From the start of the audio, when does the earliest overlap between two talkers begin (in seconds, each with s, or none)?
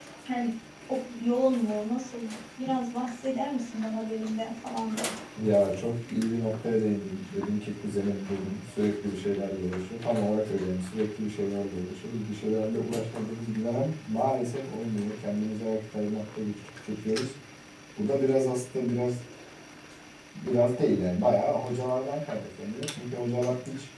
none